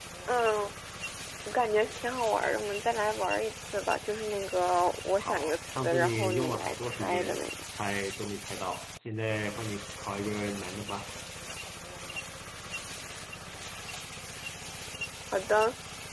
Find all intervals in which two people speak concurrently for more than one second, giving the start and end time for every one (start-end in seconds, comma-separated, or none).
5.2-7.4